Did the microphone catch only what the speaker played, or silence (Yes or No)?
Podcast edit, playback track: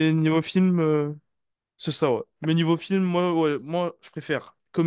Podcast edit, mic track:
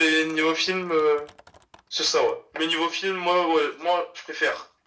Yes